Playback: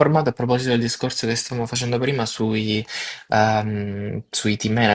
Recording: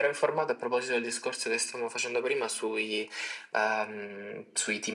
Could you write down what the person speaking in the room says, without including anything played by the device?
none

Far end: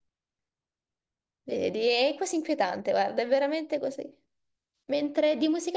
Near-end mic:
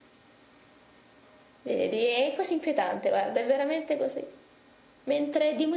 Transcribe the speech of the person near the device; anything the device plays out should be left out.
none

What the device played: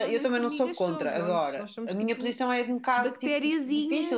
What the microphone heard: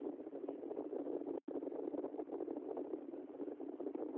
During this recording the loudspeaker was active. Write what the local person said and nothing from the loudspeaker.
none

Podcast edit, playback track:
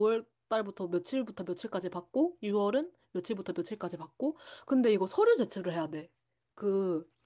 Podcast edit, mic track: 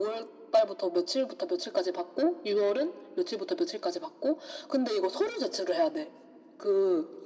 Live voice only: none

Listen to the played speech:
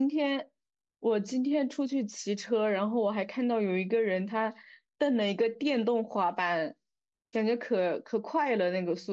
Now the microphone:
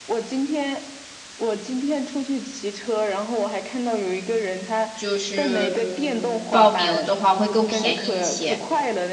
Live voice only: 就是嗯报名的话会更便宜一些。

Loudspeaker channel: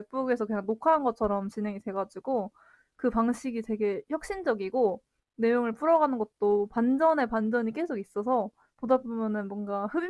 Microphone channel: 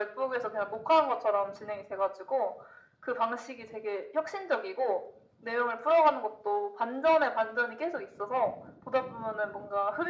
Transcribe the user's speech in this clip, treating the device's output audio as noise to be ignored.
none

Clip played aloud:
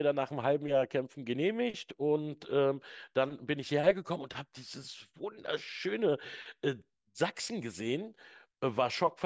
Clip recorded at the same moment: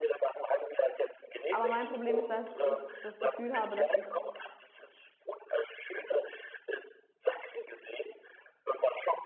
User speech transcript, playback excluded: Aber mein Problem ist, dass ich das Gefühl habe, dass ich

